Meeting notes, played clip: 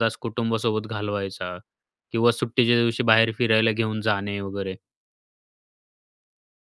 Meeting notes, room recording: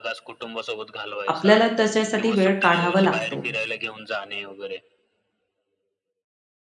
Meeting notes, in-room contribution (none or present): present